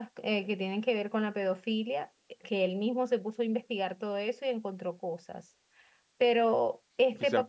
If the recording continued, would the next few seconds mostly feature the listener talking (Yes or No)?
Yes